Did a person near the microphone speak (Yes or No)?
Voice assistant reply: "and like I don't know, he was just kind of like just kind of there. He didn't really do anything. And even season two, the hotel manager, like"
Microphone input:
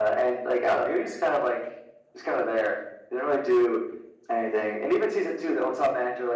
No